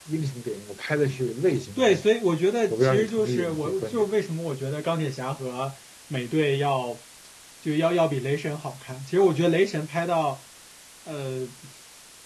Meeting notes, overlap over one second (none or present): present